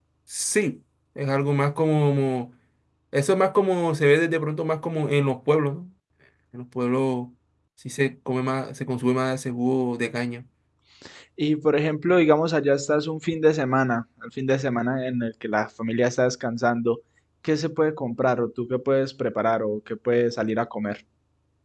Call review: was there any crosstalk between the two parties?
No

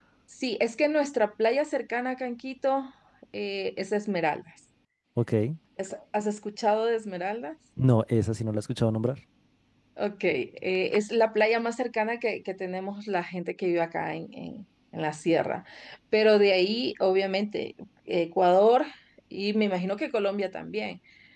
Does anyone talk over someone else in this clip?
No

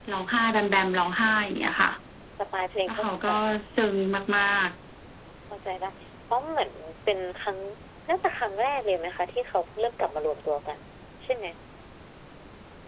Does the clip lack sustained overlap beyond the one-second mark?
Yes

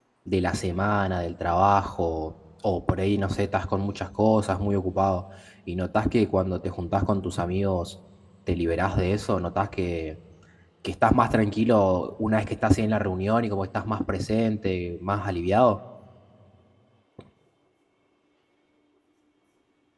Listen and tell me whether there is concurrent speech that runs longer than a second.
No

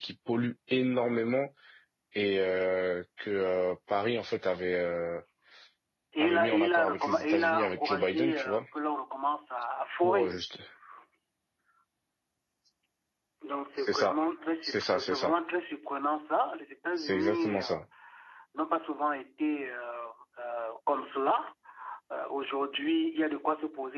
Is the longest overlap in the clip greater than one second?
Yes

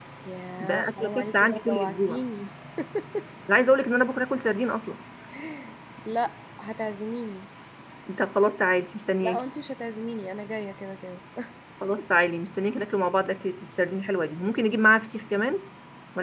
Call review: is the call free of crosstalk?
No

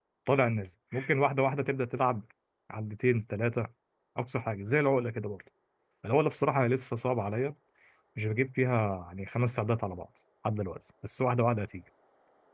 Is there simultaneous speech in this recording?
No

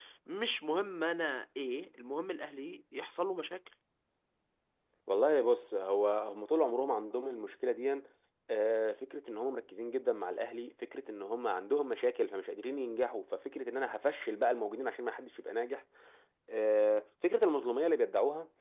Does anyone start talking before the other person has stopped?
No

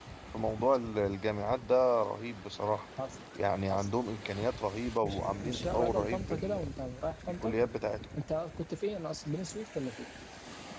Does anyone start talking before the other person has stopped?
Yes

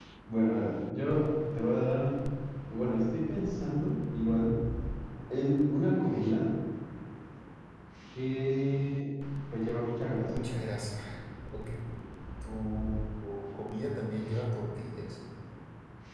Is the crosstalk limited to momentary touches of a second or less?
Yes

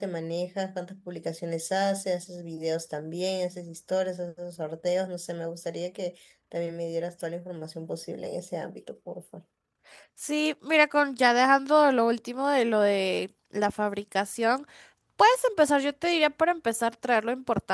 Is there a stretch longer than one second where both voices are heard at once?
No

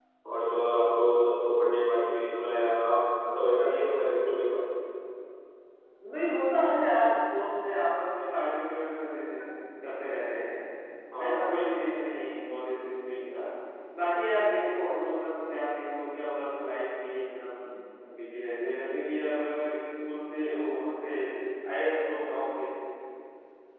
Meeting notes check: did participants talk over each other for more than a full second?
No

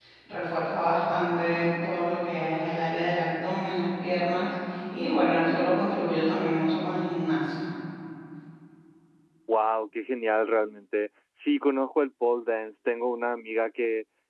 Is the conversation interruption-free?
Yes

